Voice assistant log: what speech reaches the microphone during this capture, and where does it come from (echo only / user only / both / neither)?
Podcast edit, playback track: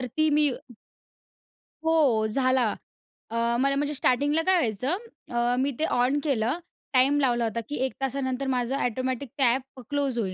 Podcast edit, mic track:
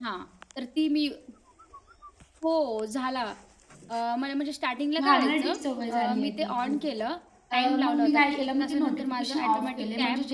both